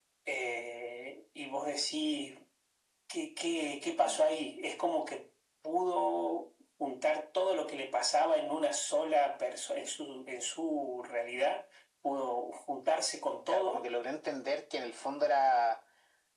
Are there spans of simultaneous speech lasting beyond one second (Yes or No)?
No